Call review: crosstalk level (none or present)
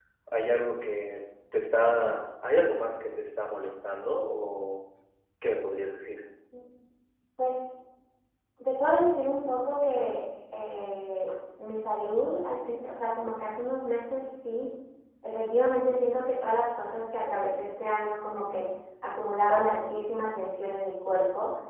none